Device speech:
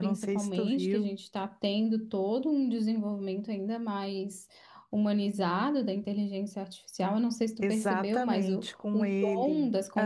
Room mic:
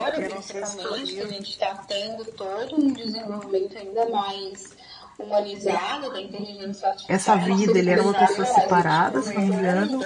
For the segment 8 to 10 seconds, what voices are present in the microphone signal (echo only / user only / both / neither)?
both